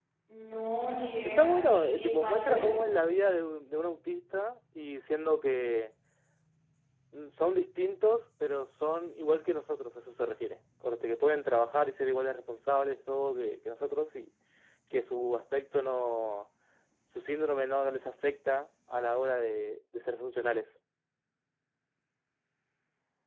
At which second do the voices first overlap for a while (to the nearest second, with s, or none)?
1 s